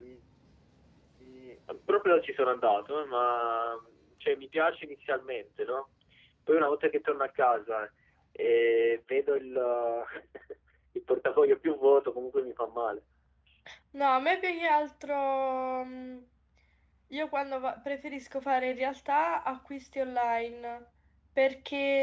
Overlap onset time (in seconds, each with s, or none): none